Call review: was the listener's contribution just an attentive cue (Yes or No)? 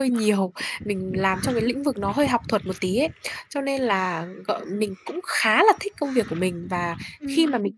Yes